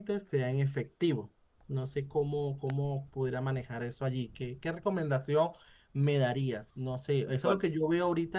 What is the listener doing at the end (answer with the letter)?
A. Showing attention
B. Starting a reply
A